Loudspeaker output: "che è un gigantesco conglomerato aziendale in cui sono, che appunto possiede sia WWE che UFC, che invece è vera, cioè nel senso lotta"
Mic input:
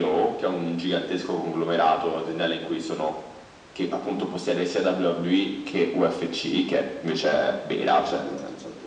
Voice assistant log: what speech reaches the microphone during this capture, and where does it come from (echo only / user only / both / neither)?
echo only